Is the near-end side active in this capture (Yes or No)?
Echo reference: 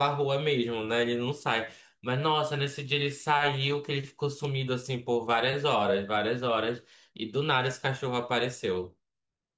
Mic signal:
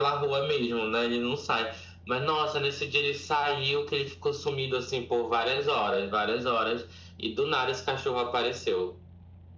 No